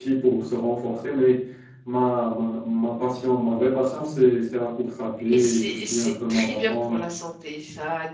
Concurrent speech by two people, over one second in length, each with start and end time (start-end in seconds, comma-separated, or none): 5.3-7.0